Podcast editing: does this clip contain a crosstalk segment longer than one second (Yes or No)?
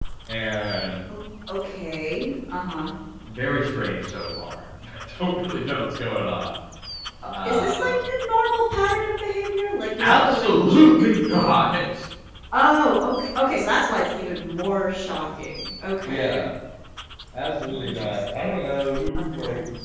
Yes